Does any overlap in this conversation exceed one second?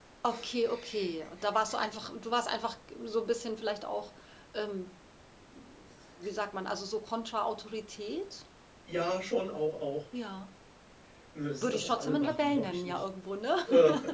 Yes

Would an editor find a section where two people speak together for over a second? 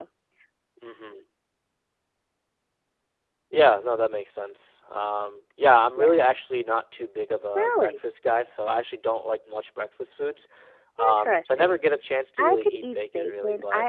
Yes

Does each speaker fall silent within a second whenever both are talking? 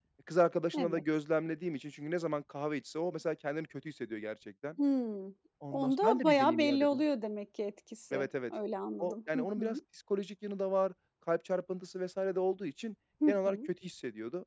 No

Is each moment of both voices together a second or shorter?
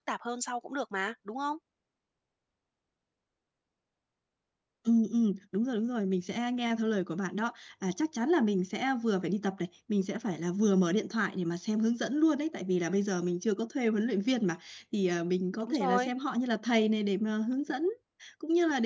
Yes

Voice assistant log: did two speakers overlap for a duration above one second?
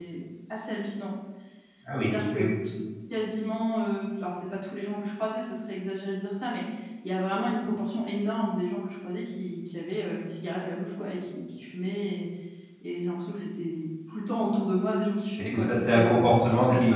Yes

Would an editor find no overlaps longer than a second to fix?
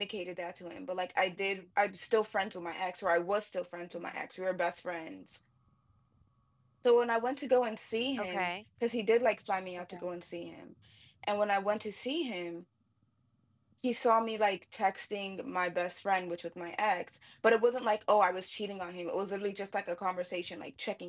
Yes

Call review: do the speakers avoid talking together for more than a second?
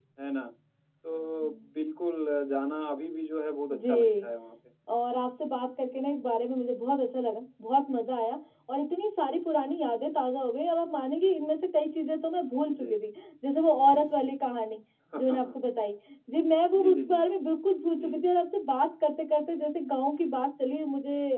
Yes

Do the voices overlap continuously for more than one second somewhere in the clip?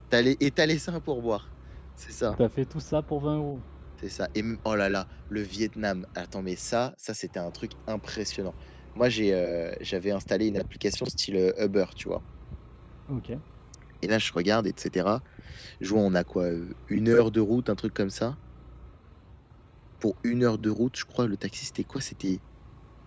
No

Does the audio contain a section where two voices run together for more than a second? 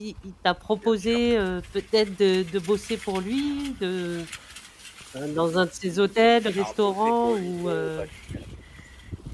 Yes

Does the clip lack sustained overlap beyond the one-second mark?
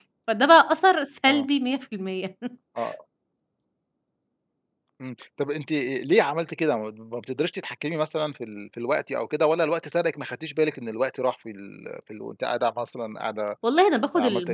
Yes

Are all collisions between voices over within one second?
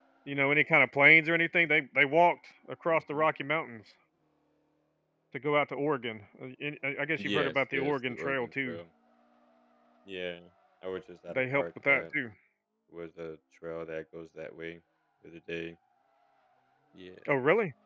No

